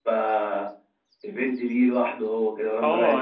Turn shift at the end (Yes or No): Yes